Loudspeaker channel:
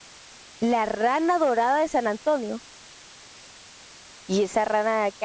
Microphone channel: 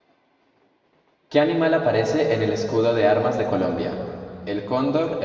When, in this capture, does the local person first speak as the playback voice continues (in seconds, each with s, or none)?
1.3 s